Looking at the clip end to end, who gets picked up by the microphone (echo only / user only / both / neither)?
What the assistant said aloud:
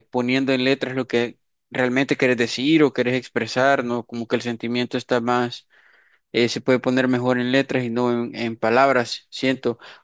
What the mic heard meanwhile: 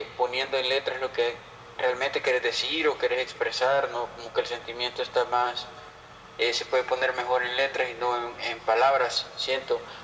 echo only